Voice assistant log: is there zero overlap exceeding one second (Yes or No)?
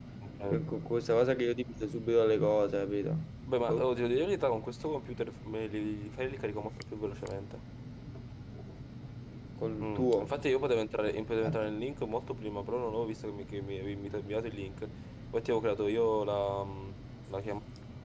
Yes